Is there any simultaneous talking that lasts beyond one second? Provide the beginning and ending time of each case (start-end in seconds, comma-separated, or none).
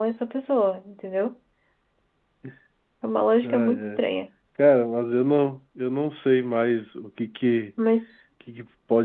none